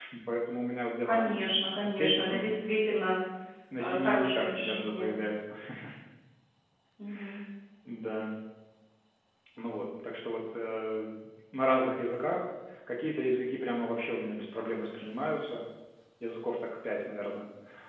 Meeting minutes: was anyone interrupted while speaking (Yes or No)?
Yes